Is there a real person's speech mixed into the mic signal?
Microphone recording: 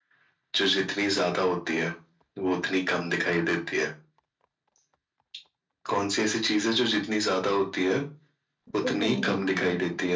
Yes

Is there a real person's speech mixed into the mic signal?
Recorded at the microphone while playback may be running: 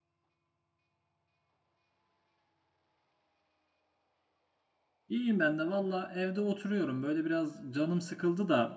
Yes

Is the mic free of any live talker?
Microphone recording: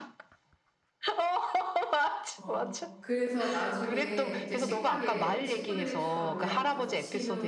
No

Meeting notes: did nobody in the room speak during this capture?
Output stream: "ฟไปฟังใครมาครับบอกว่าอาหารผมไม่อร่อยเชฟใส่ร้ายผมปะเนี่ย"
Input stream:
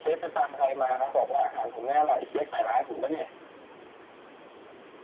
Yes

